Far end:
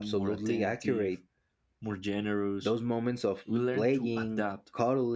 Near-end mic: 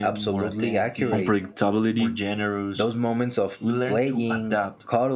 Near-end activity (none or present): present